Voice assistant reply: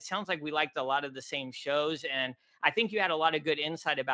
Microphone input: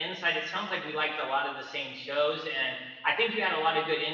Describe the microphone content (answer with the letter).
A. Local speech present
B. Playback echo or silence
B